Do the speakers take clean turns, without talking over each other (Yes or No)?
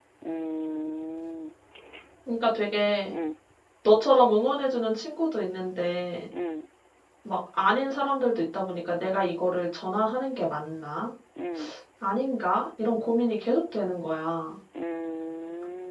Yes